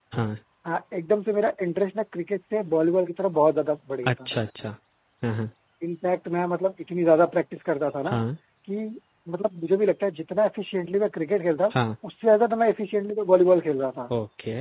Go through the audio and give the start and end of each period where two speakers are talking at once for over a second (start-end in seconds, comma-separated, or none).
none